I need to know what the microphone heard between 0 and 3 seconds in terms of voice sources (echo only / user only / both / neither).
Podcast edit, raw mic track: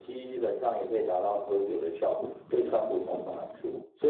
echo only